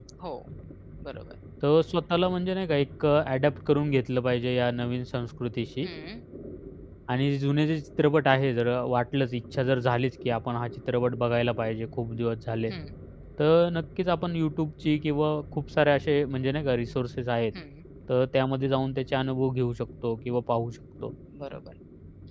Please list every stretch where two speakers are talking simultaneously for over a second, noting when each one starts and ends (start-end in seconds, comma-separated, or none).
none